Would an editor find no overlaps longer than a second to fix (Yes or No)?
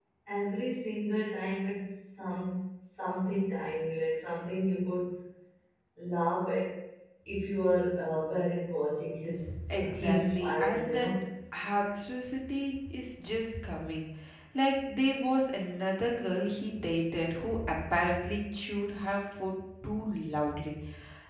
No